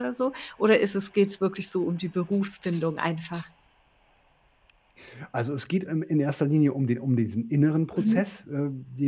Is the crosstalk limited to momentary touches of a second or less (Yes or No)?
Yes